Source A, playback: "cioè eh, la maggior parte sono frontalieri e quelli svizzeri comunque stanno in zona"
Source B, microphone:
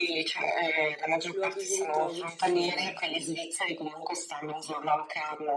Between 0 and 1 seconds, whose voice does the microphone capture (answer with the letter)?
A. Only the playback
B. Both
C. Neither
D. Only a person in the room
A